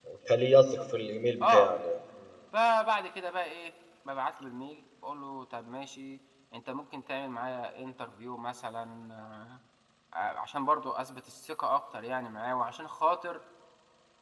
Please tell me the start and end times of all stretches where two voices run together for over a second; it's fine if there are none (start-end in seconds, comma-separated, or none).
none